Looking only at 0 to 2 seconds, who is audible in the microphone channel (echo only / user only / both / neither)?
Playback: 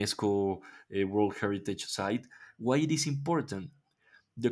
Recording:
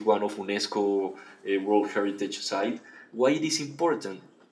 echo only